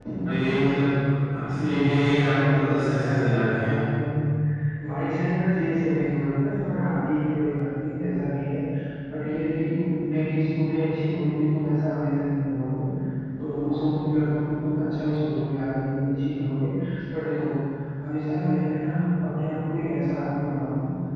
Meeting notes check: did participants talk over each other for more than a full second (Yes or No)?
Yes